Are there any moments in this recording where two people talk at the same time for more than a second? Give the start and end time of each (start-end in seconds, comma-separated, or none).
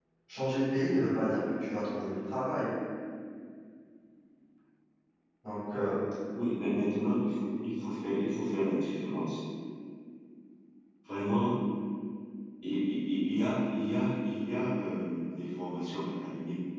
none